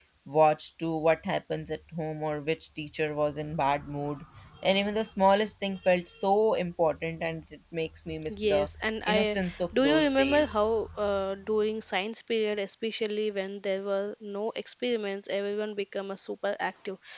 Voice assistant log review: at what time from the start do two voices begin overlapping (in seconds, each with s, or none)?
8.3 s